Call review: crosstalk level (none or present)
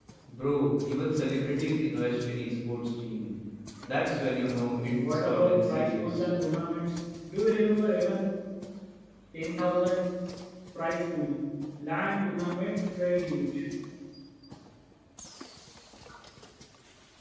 present